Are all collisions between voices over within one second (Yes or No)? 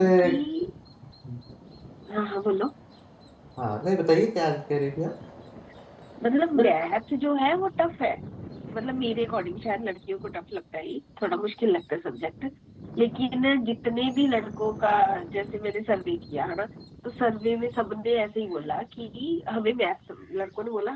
Yes